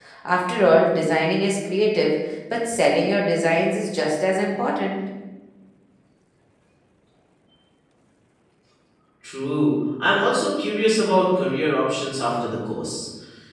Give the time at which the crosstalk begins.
none

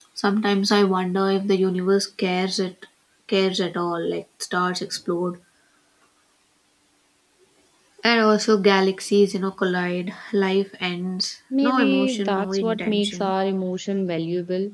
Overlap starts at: 11.5 s

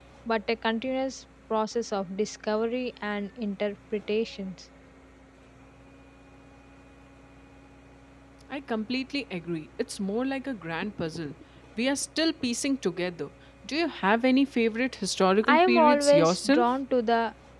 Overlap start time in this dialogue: 15.4 s

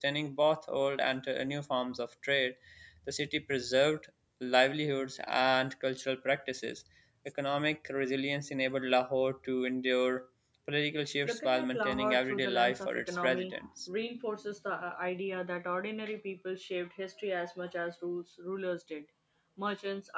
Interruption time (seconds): 11.2 s

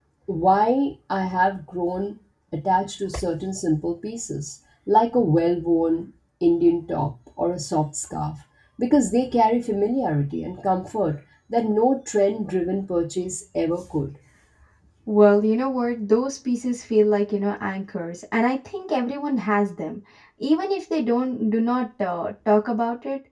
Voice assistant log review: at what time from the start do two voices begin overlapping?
none

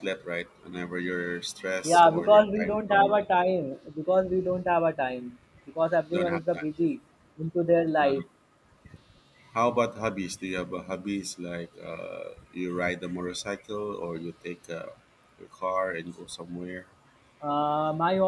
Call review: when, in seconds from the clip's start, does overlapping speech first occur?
1.9 s

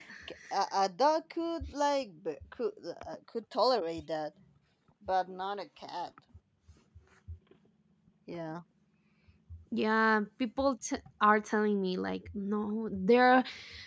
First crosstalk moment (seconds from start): none

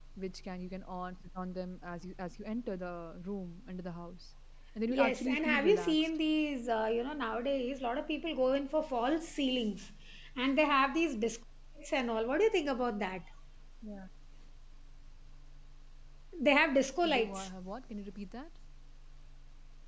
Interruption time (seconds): 4.9 s

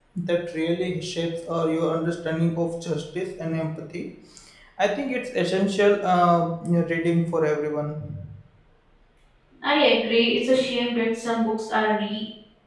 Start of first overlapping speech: none

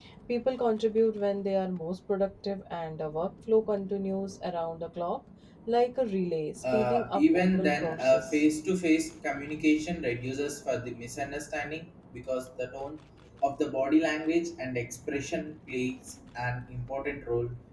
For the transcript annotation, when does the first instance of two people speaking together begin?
6.6 s

